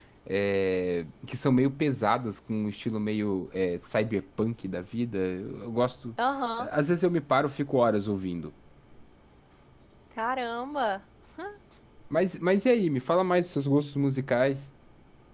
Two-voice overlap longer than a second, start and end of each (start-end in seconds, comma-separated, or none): none